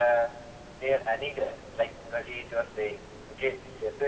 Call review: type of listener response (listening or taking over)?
listening